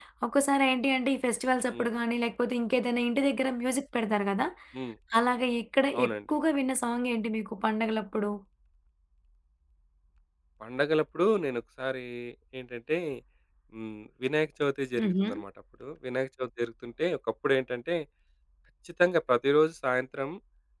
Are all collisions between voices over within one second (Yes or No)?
Yes